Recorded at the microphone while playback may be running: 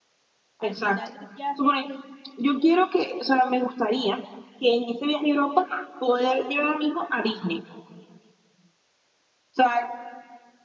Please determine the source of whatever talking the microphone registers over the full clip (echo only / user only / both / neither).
both